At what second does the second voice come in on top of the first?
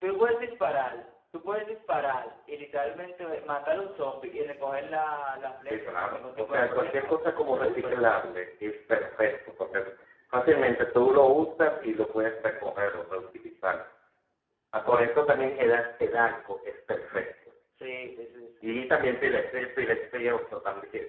6 s

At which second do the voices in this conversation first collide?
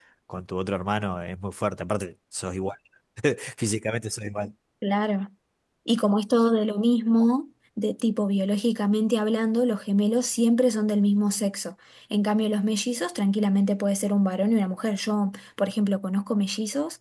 none

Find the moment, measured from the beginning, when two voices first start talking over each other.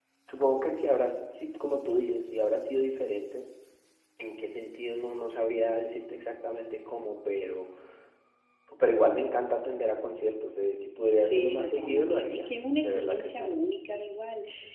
11 s

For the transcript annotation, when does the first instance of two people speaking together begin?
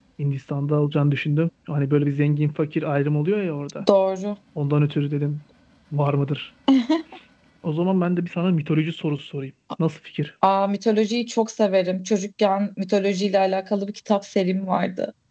none

